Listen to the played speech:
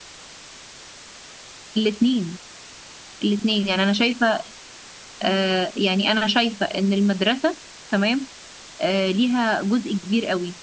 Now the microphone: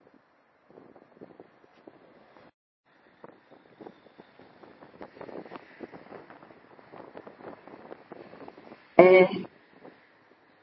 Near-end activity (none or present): present